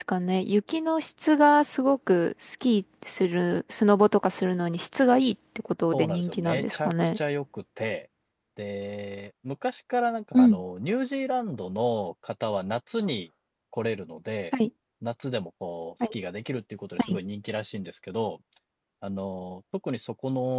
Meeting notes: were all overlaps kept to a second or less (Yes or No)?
No